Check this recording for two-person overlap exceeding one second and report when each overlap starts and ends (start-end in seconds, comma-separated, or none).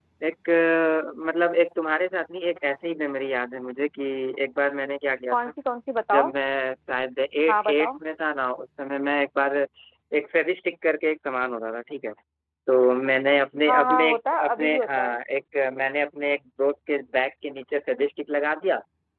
13.7-15.1